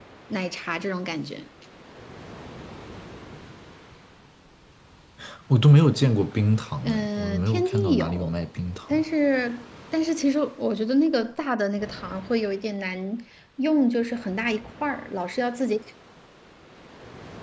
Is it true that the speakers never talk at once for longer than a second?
No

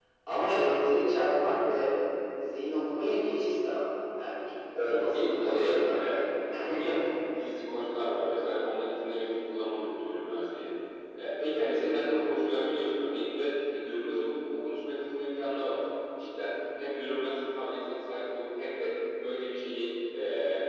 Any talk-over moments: Yes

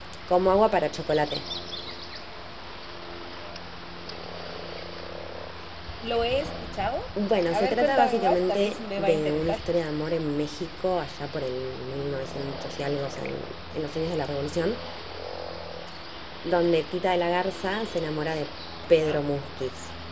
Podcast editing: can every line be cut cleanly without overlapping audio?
No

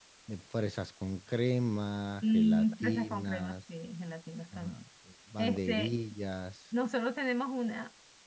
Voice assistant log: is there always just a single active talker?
No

